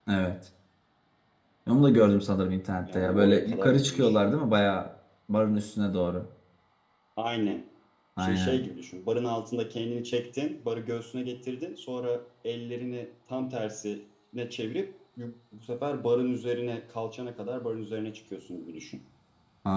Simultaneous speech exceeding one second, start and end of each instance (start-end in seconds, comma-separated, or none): 2.9-4.2